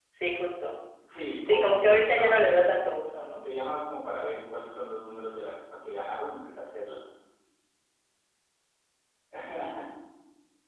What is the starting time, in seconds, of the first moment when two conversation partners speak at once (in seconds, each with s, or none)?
1.4 s